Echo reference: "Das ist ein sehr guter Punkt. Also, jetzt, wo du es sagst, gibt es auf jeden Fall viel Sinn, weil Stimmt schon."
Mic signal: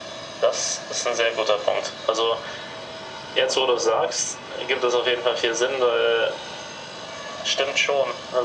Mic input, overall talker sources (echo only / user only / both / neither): echo only